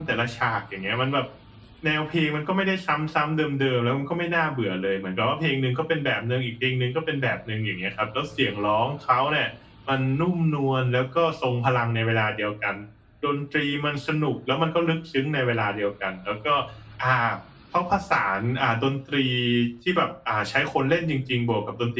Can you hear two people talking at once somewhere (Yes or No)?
No